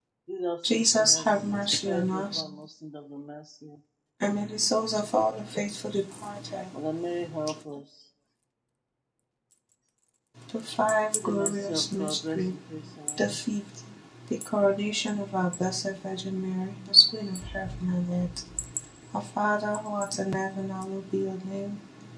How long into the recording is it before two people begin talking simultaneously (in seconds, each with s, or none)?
0.7 s